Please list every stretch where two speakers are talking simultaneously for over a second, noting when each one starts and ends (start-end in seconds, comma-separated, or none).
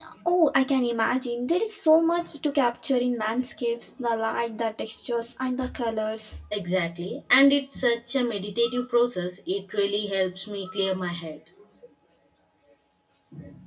none